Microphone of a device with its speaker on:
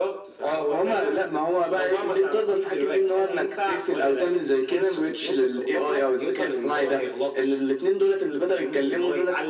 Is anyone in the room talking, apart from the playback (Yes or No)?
No